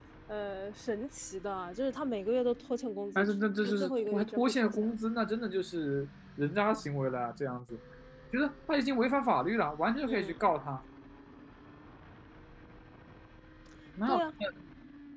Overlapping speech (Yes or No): Yes